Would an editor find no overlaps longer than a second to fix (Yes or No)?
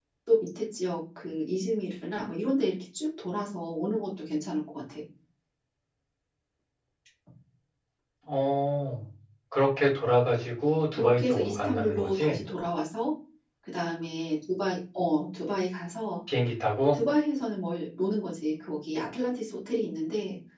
No